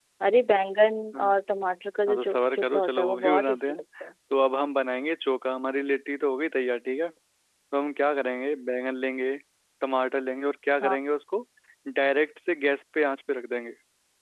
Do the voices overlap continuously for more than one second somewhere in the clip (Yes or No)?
Yes